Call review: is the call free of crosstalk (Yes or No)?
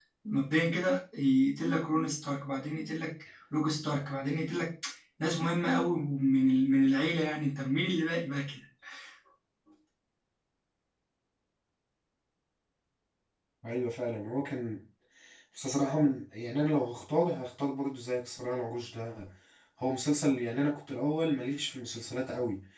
Yes